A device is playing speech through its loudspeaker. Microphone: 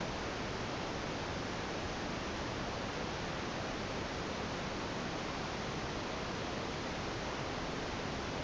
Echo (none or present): none